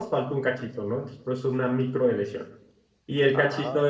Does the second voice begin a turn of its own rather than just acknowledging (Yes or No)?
No